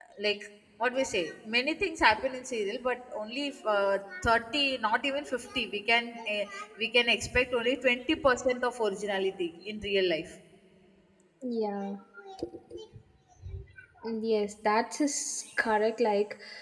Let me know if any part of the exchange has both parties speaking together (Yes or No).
No